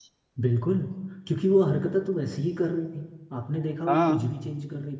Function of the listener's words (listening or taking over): listening